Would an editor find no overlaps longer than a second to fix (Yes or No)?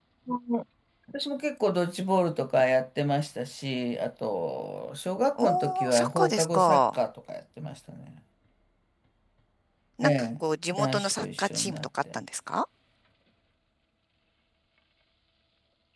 No